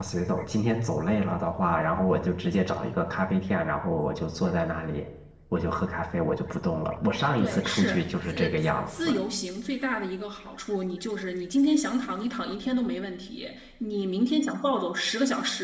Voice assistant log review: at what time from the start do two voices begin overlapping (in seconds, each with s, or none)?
7.4 s